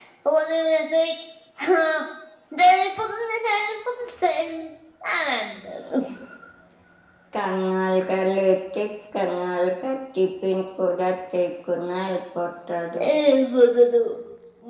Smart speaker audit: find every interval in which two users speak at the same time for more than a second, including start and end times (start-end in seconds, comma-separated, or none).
none